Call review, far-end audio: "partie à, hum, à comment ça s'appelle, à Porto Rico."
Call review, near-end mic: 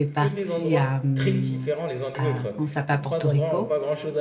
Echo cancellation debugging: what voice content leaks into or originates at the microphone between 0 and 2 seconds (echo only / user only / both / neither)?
both